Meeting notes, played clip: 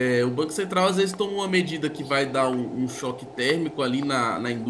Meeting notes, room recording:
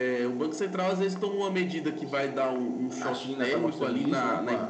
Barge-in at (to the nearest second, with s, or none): 3 s